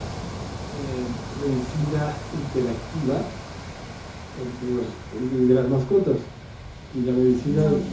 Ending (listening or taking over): listening